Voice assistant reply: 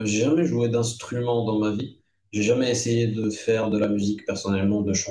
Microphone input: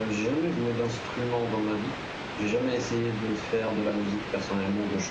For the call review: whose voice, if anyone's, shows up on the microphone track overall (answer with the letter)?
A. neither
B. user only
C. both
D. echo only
D